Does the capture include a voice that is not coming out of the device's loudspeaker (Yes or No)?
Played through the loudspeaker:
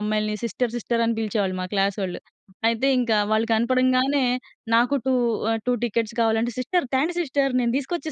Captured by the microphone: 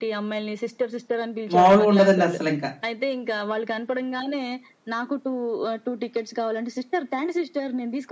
Yes